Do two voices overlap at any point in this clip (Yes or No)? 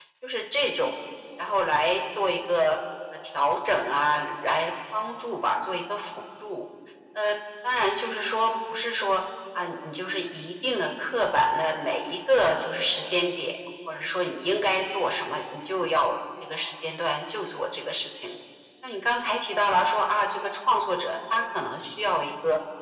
No